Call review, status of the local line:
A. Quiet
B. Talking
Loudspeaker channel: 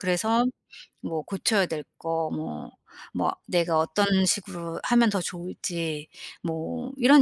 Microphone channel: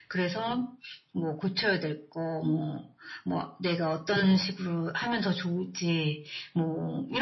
A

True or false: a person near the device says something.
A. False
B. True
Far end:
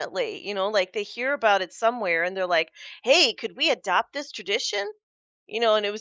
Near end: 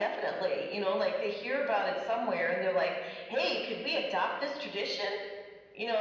A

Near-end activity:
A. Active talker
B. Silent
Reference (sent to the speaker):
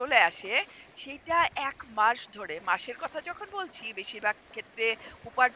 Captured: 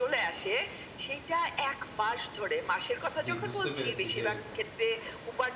A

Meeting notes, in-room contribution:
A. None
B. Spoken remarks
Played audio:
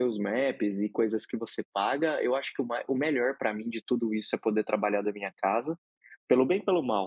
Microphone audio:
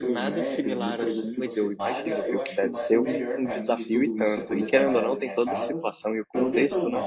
B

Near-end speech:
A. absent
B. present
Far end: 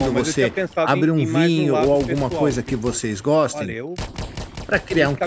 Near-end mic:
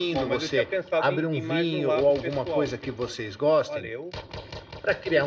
A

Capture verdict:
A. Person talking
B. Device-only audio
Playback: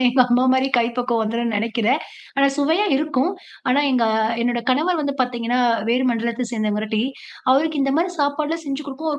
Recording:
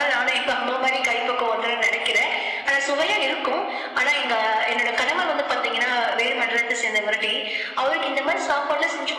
B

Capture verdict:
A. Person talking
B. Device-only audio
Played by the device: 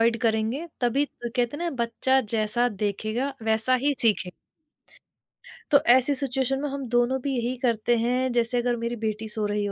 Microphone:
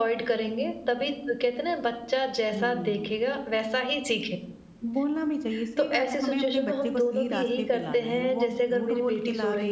A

